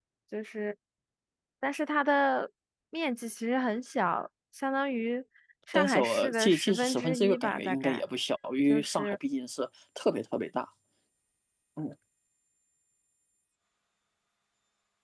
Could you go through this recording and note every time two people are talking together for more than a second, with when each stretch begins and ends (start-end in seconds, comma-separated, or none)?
5.7-8.0